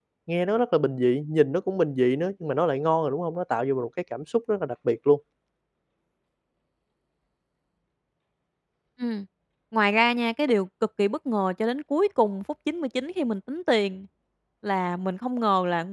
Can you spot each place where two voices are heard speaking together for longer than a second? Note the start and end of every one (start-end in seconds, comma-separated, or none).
none